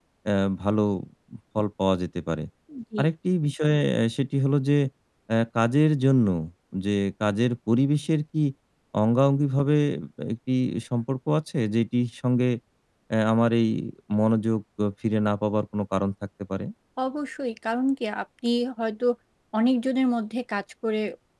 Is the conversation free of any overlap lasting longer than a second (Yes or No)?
Yes